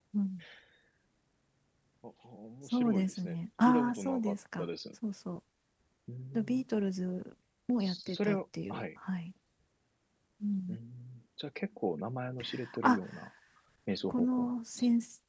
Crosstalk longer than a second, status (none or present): present